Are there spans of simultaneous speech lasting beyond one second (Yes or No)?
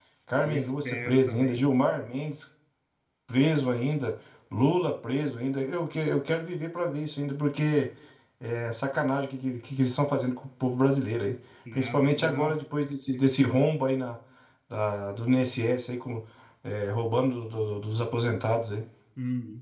Yes